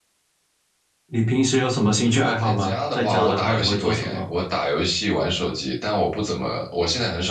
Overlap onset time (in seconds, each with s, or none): 2.0 s